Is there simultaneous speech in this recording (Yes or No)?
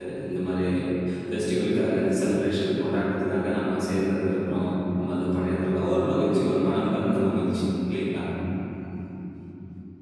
No